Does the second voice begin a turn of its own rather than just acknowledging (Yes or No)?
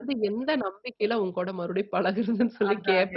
Yes